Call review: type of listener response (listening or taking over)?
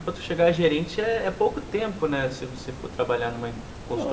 taking over